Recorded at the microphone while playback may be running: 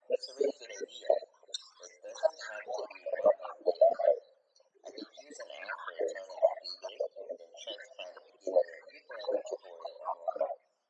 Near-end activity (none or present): none